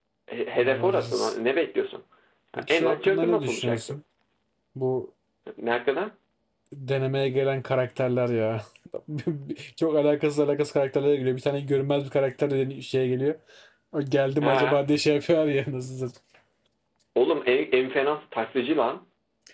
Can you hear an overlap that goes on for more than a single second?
Yes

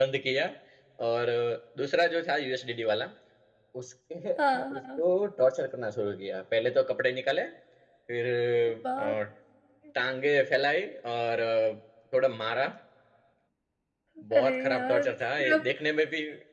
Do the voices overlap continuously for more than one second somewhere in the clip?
Yes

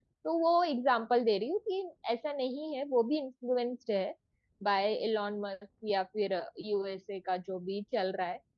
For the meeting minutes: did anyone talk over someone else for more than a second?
No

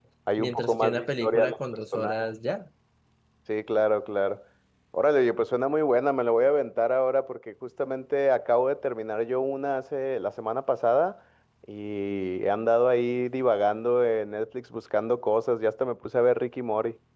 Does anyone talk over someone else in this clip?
Yes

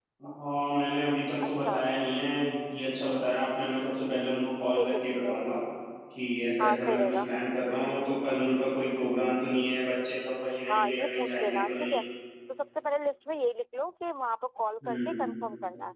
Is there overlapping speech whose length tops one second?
Yes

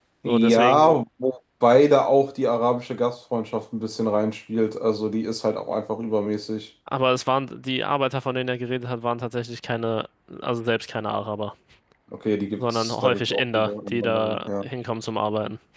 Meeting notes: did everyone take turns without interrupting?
No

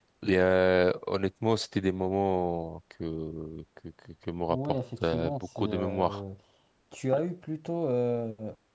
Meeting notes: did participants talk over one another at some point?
Yes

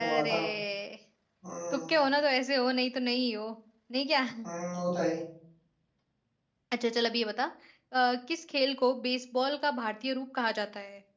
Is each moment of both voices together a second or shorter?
Yes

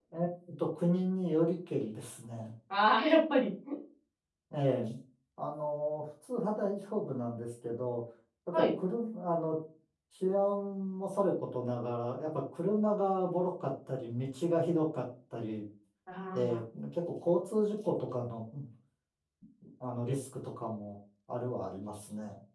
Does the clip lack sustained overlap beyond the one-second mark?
Yes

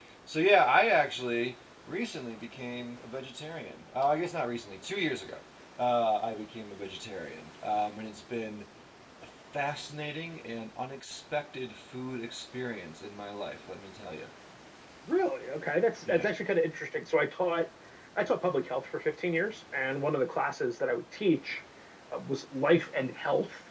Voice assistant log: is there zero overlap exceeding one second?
Yes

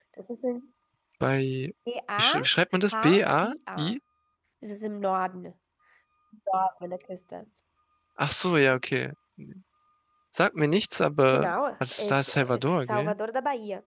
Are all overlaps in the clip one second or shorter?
No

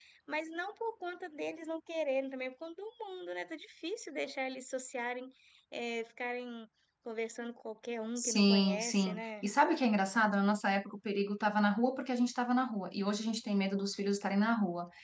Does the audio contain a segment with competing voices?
Yes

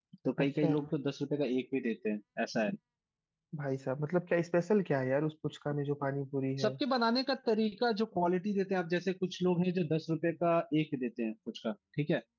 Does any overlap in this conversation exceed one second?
No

